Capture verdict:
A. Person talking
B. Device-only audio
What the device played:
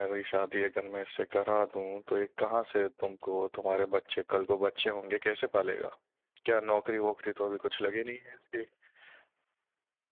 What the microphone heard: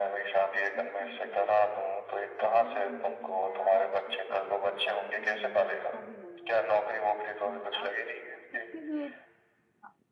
A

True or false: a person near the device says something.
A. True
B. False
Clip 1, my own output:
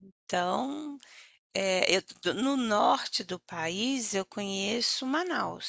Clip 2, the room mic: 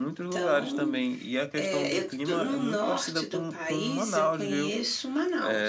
A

